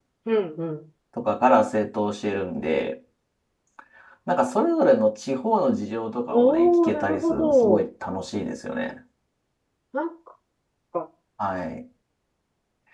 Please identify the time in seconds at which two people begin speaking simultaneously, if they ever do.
6.3 s

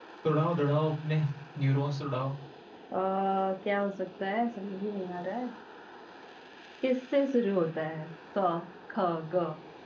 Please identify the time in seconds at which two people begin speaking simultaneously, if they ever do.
none

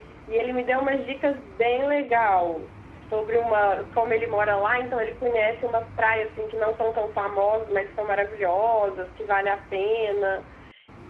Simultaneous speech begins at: none

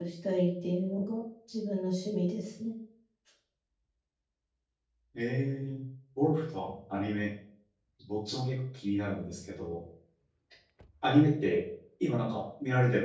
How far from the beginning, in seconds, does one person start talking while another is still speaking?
none

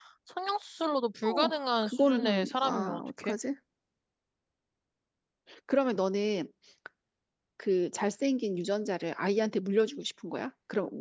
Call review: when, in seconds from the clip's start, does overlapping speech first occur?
1.2 s

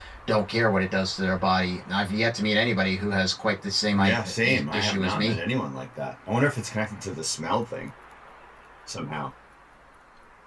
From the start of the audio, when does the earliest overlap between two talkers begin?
3.9 s

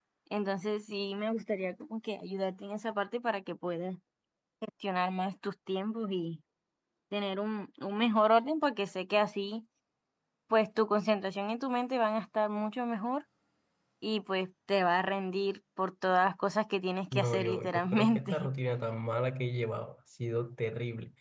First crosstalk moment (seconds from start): 17.1 s

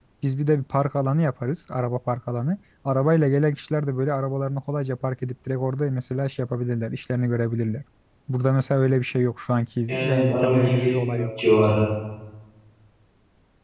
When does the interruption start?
9.9 s

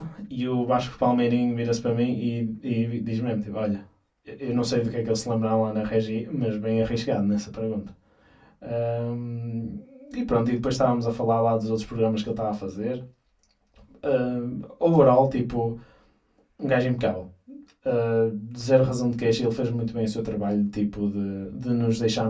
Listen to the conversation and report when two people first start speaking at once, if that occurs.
none

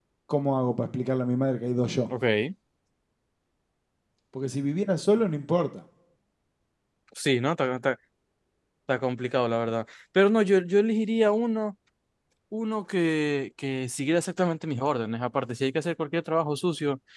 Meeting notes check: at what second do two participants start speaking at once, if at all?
none

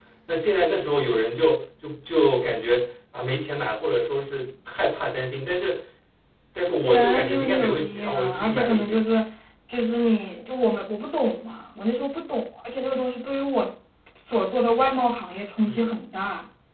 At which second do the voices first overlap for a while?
6.8 s

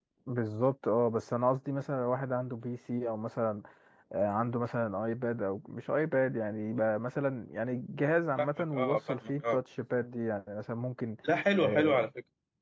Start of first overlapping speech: 8.4 s

